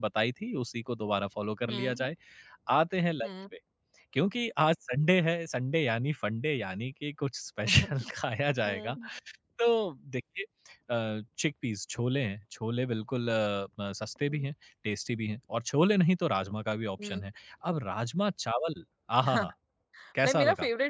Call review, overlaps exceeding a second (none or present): none